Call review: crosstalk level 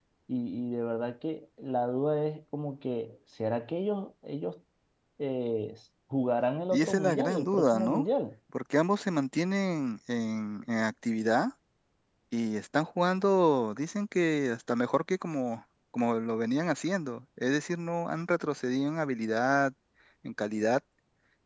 present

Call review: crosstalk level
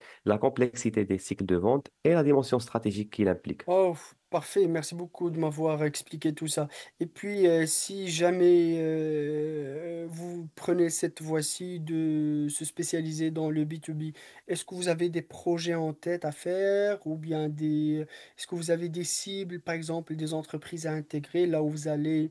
none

